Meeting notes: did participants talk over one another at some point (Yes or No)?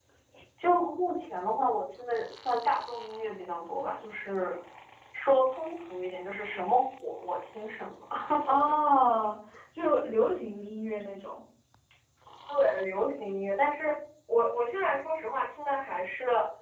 No